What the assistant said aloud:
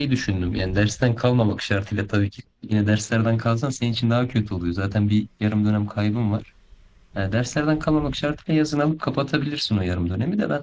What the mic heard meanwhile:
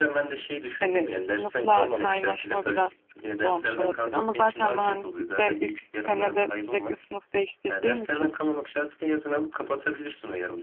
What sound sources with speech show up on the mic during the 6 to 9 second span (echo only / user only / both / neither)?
both